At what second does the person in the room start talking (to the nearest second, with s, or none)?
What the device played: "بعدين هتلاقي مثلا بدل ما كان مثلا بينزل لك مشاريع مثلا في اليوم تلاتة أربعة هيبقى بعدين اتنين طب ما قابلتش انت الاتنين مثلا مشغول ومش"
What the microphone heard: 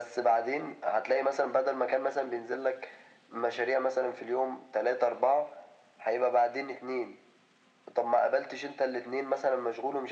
none